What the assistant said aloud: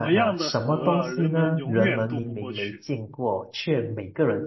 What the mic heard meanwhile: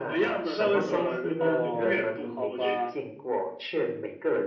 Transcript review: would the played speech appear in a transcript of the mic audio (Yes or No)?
Yes